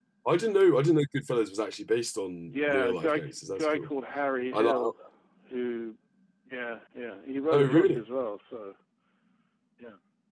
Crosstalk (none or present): present